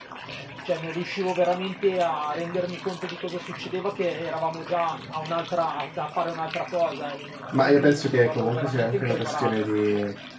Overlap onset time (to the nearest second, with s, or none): 8 s